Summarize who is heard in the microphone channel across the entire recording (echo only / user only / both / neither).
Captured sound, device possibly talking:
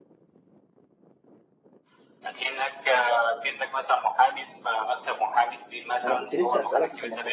both